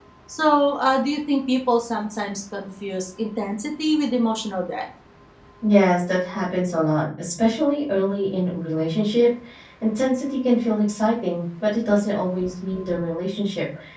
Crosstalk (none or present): none